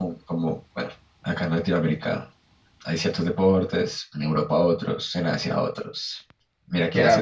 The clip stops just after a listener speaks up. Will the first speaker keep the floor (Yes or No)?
No